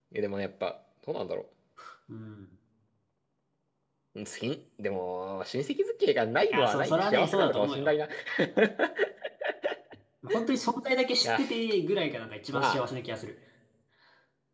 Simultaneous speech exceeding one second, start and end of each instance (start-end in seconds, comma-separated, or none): 6.5-7.9